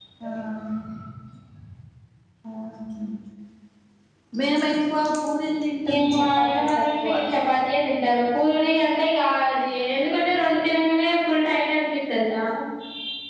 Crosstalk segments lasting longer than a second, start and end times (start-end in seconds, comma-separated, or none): 5.8-7.1